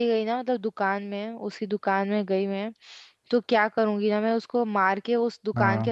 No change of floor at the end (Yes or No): Yes